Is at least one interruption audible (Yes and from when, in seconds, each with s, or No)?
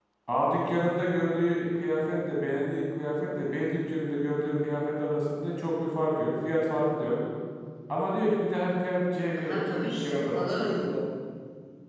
Yes, from 9.3 s